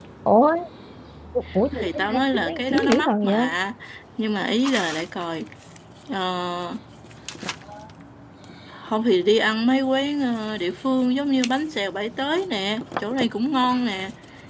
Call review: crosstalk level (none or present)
present